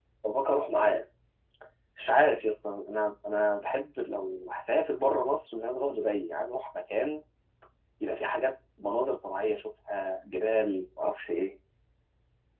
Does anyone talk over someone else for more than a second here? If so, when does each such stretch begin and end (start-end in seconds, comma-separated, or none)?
none